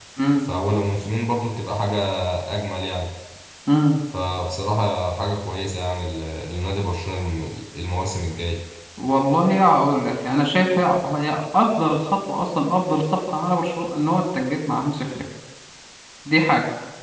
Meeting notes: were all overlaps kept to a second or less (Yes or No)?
Yes